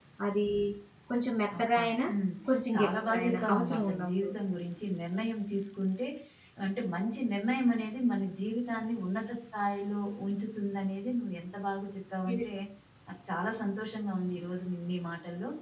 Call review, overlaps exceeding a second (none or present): present